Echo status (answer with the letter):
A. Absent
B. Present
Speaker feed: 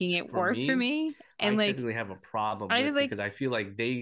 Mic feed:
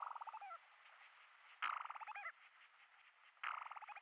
A